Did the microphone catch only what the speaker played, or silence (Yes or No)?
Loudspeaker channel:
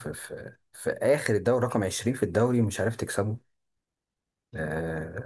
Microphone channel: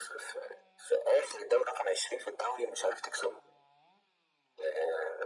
Yes